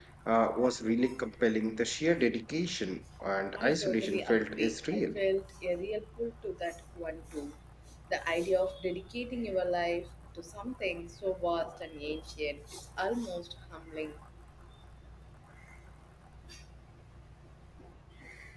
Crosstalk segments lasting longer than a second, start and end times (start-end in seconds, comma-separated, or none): 3.5-5.0